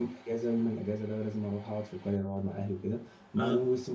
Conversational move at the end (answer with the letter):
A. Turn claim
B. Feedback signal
B